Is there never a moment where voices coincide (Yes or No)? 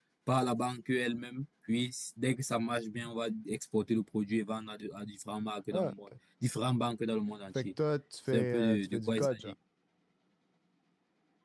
No